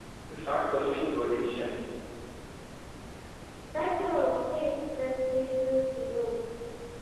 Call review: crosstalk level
none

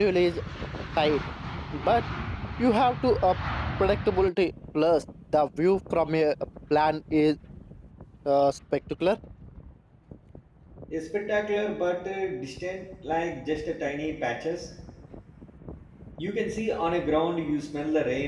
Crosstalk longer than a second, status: none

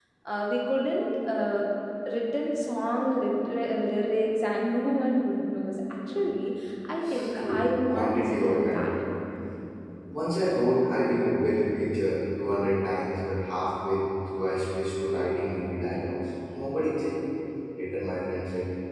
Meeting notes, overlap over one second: present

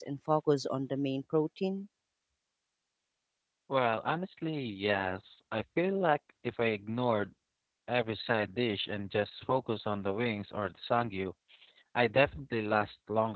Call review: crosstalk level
none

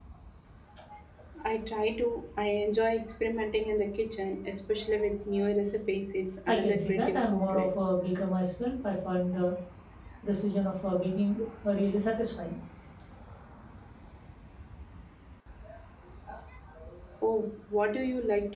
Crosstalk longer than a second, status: present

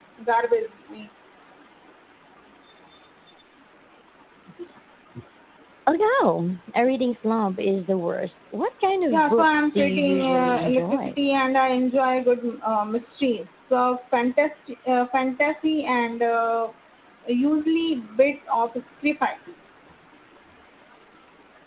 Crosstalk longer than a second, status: present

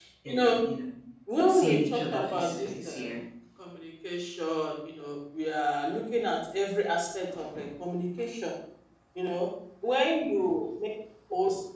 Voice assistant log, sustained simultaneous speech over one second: present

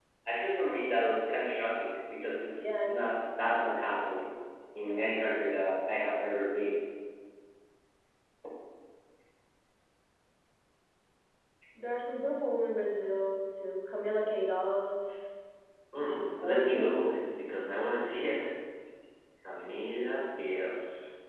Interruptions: present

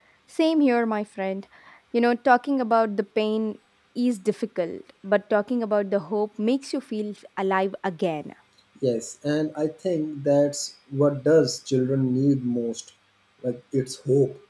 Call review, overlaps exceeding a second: none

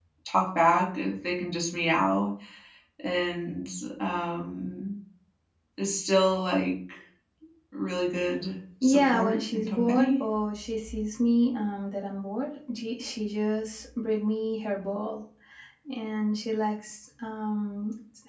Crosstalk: present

